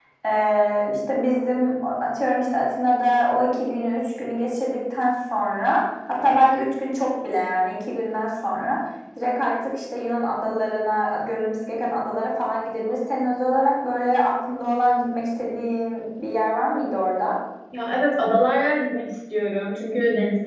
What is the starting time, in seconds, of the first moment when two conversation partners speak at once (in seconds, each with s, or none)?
none